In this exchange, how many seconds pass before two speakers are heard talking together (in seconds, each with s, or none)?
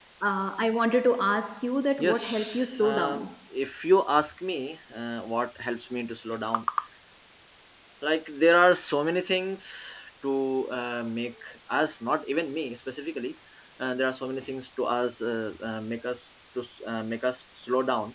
2.0 s